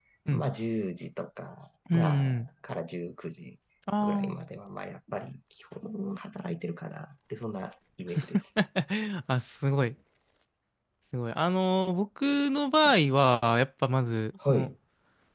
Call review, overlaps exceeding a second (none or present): none